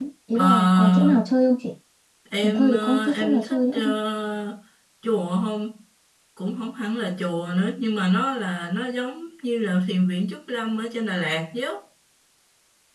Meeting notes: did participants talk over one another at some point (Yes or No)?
Yes